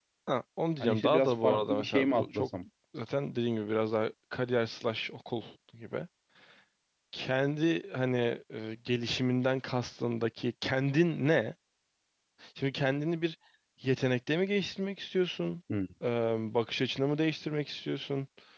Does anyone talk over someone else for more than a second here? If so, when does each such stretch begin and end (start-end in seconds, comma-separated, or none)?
0.8-2.5